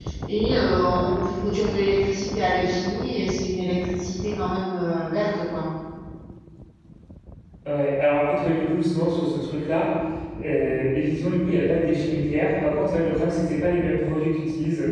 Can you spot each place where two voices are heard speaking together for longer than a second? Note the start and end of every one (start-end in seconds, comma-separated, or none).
none